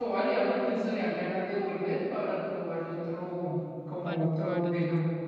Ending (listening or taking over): taking over